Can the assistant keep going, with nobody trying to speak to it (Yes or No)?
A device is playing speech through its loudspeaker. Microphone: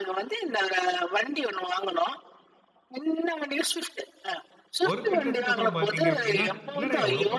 No